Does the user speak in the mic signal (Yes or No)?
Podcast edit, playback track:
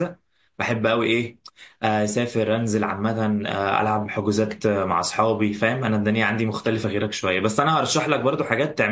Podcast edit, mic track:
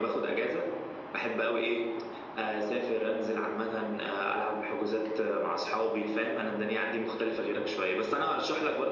No